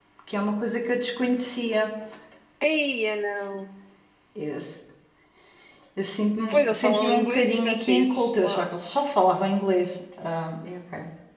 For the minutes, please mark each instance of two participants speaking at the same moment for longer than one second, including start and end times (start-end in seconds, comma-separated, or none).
6.5-8.7